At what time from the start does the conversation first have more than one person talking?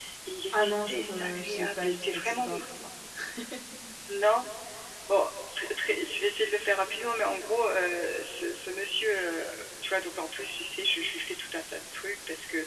0.5 s

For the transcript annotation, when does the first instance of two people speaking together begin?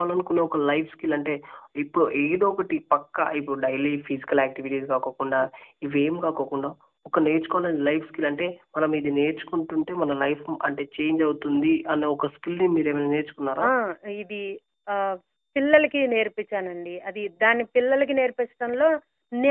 none

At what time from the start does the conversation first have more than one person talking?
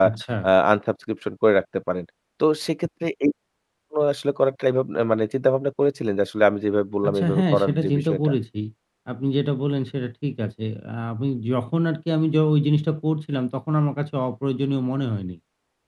7.0 s

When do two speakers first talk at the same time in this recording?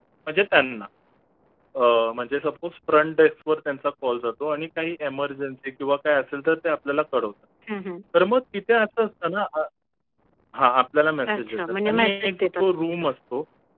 11.3 s

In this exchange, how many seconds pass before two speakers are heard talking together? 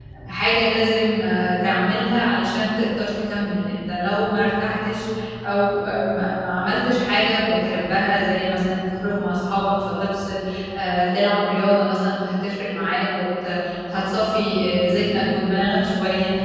none

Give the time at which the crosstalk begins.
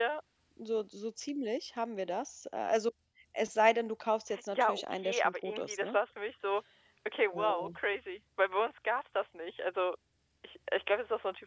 4.5 s

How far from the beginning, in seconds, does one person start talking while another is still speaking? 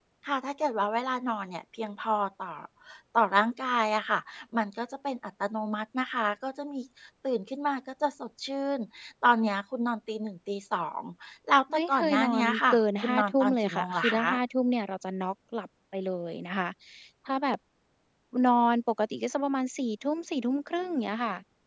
11.7 s

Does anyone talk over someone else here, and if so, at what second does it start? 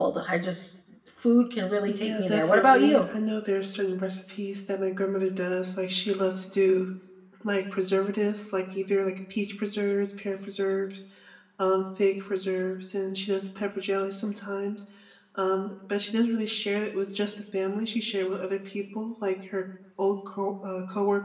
1.9 s

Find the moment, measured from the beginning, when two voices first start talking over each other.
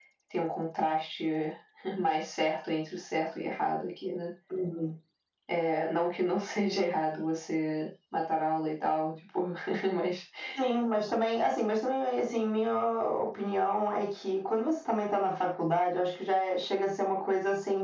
none

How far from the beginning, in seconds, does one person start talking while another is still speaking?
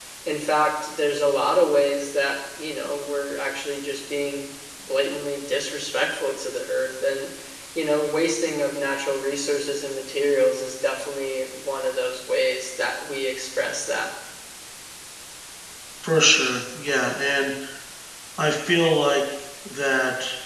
none

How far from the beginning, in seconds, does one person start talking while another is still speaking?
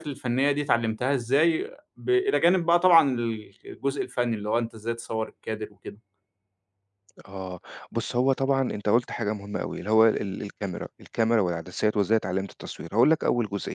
none

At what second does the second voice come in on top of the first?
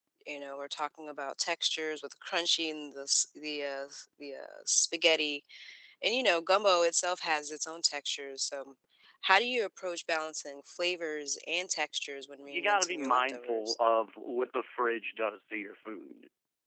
12.4 s

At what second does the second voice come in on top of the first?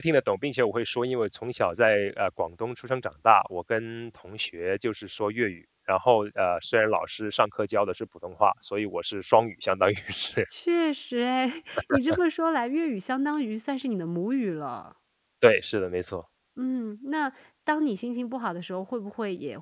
none

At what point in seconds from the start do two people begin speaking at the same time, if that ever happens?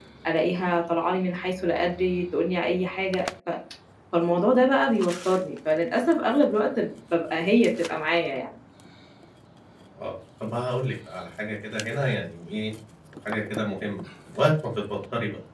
none

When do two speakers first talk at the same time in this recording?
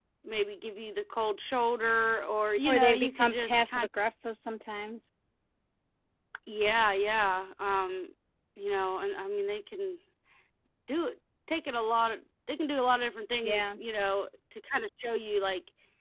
2.7 s

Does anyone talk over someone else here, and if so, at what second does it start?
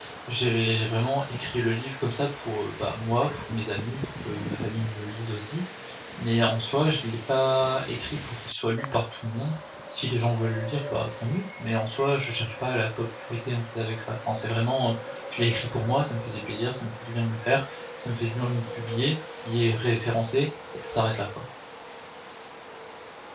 none

